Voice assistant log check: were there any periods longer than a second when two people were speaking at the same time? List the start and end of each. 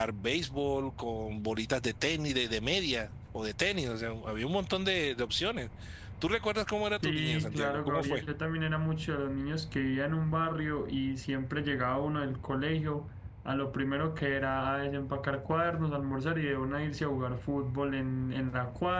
7.0-8.2

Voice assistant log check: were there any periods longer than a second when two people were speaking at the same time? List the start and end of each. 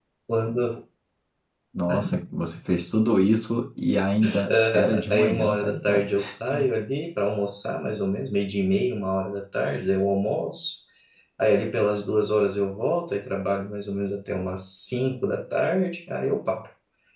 4.5-6.0

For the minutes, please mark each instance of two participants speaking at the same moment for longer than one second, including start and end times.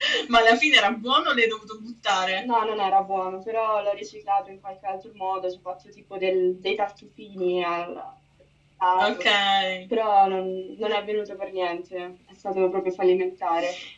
none

